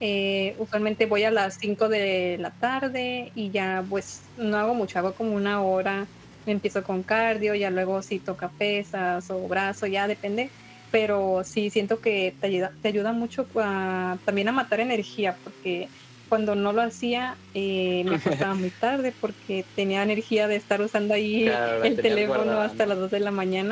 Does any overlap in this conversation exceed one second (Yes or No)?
Yes